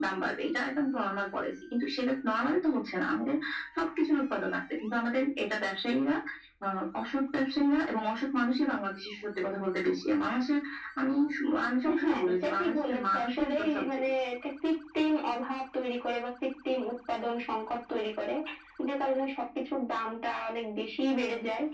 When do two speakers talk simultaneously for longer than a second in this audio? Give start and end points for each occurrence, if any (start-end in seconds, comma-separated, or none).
12.0-14.0